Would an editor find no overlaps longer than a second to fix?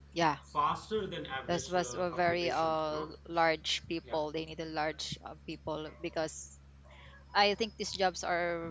No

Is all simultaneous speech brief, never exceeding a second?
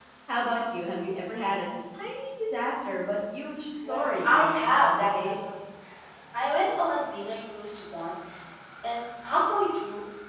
No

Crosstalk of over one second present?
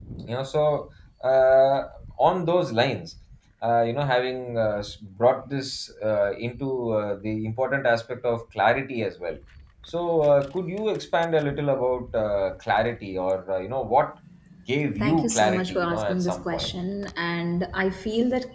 Yes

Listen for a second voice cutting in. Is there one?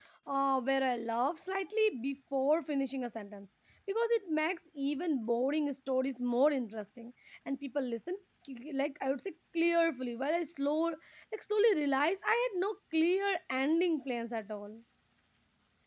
No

